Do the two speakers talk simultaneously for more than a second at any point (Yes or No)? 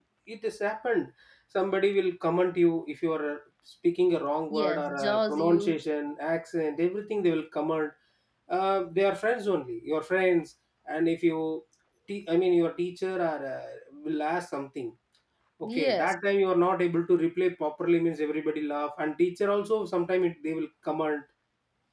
Yes